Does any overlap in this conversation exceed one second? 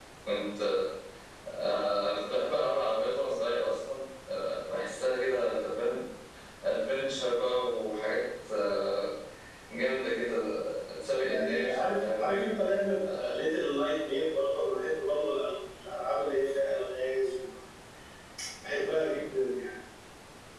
Yes, from 11.0 s

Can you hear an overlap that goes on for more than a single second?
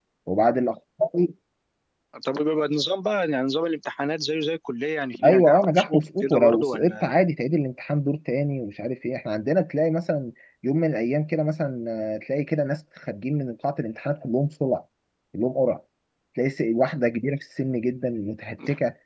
Yes, from 5.2 s

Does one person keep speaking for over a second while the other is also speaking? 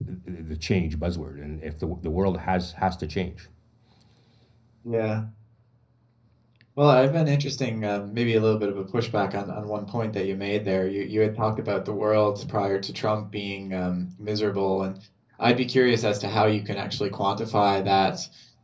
No

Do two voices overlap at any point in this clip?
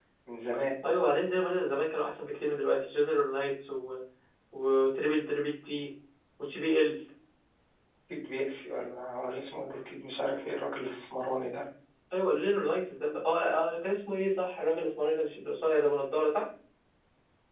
No

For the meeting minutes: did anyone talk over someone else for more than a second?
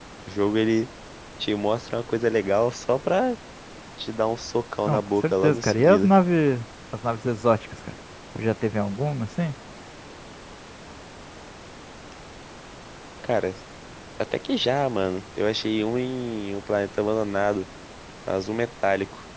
Yes, from 4.9 s

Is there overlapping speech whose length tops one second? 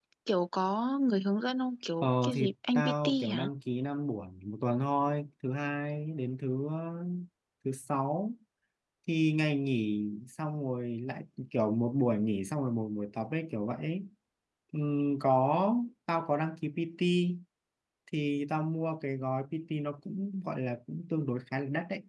Yes, from 2.0 s

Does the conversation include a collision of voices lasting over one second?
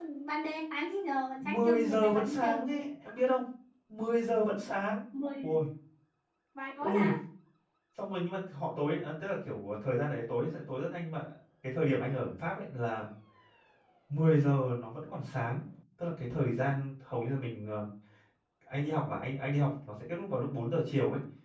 Yes, from 1.4 s

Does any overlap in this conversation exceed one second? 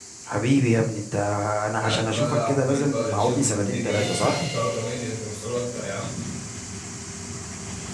Yes, from 1.8 s

